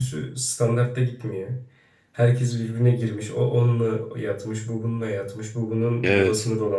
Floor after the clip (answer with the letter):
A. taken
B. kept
B